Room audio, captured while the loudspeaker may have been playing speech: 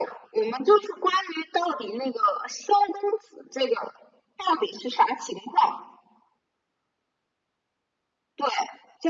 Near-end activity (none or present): none